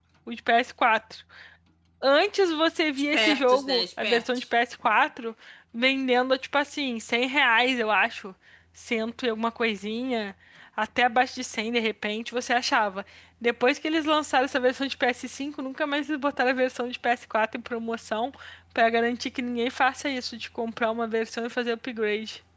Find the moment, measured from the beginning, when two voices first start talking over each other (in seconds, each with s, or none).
3.1 s